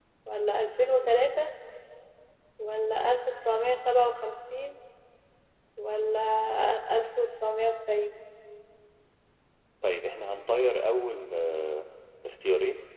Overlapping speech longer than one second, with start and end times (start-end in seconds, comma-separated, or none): none